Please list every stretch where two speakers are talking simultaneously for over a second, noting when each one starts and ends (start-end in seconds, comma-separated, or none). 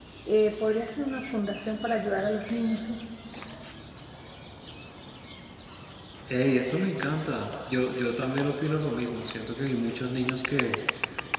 none